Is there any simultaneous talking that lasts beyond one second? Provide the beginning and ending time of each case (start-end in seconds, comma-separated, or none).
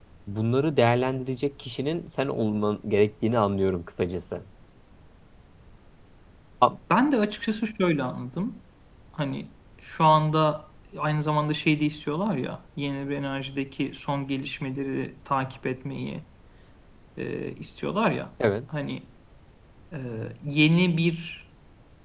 none